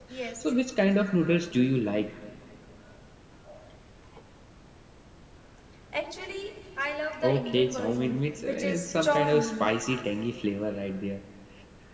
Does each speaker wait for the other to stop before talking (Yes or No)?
No